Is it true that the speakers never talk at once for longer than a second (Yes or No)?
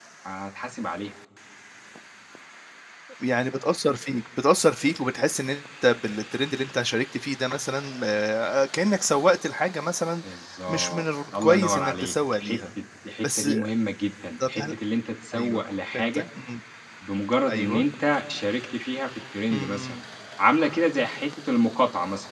No